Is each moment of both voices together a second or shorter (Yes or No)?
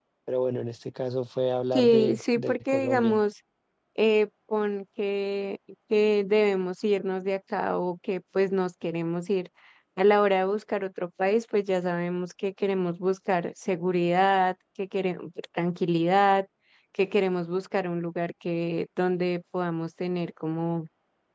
No